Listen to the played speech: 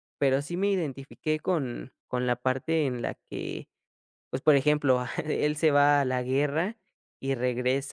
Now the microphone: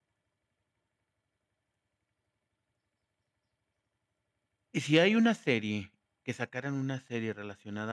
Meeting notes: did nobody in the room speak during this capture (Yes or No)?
No